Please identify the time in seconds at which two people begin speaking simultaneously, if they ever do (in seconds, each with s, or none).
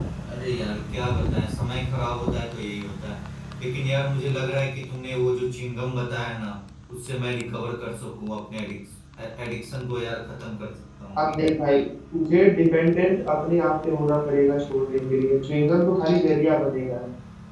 none